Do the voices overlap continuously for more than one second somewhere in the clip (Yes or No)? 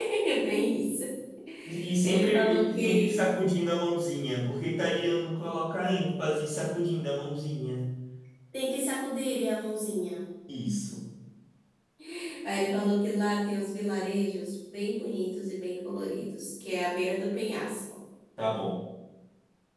Yes